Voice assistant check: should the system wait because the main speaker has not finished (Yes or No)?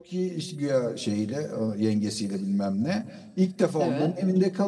Yes